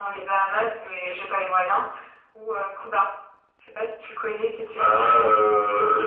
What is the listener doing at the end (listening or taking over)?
taking over